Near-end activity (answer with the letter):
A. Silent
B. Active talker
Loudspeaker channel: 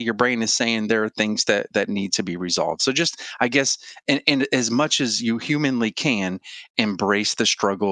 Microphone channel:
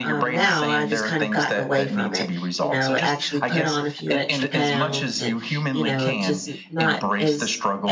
B